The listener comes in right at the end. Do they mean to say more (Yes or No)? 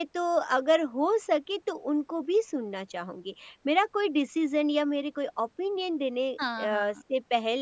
No